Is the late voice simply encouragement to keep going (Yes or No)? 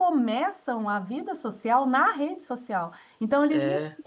Yes